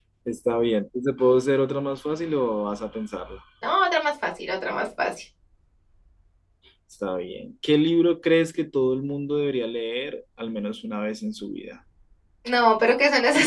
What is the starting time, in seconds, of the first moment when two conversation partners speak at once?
none

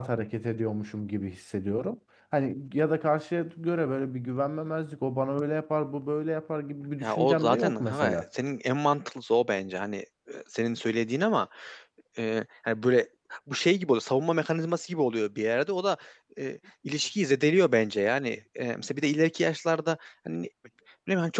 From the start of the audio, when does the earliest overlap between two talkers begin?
7 s

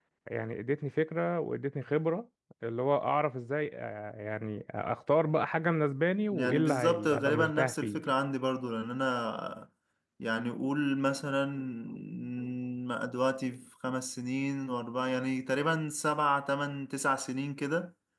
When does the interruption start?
6 s

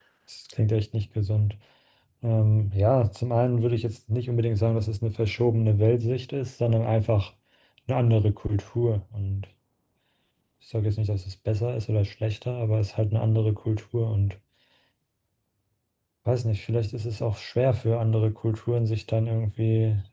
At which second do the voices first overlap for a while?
none

